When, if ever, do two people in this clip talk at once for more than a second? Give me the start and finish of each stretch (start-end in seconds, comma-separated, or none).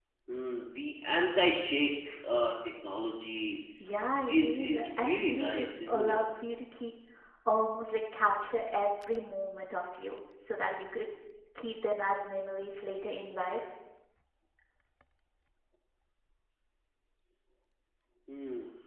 4.3-6.2